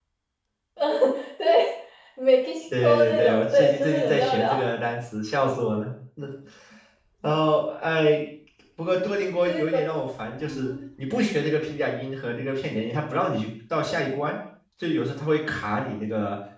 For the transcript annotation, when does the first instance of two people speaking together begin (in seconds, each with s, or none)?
2.8 s